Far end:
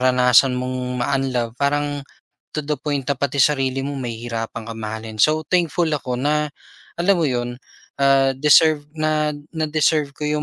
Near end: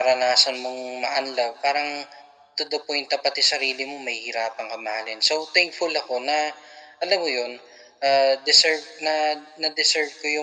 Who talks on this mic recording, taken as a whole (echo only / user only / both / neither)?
echo only